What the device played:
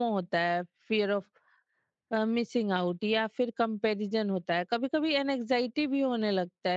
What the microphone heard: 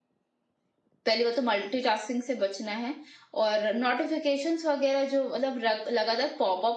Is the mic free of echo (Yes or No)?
Yes